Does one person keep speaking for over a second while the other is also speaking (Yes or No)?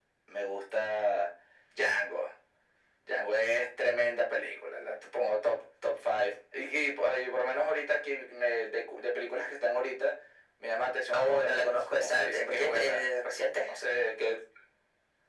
Yes